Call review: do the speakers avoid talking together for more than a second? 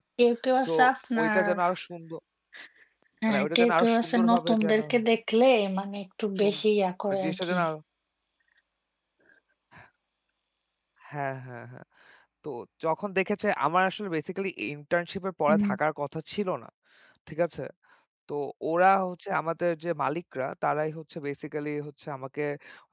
No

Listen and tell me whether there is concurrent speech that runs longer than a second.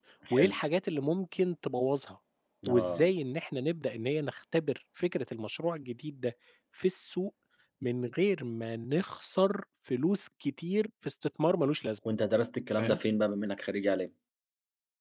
No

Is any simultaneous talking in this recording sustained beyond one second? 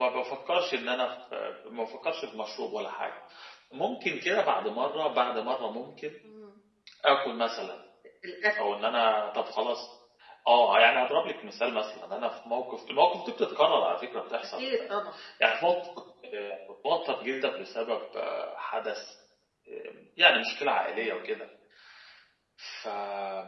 No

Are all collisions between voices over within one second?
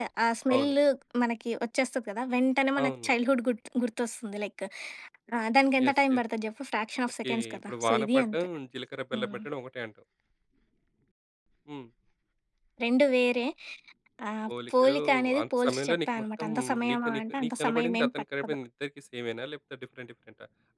No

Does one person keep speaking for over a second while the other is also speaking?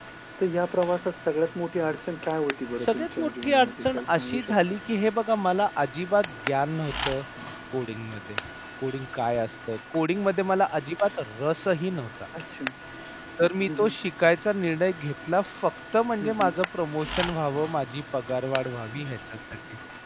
Yes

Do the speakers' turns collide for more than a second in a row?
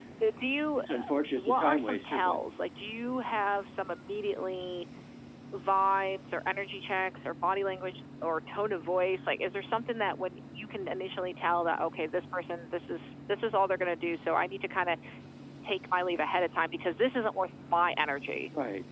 Yes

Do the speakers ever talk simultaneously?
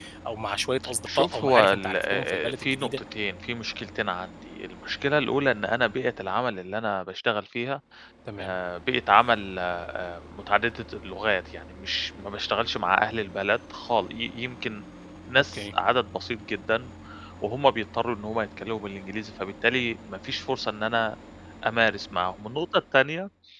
Yes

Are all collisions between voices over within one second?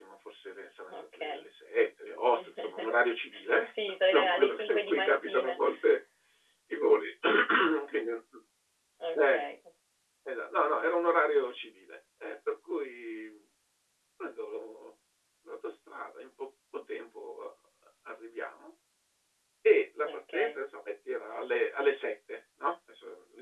No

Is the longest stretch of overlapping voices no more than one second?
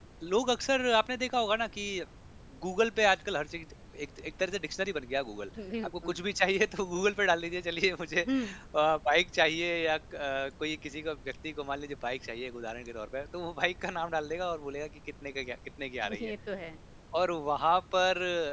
Yes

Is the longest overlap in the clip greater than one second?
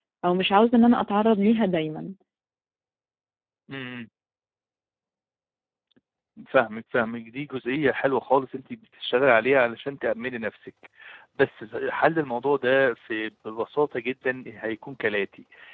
No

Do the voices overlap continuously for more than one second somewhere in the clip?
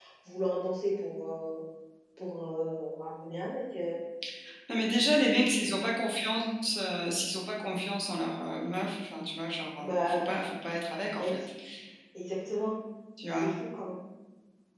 No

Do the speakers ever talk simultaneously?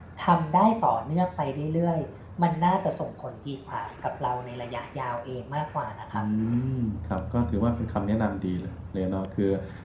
No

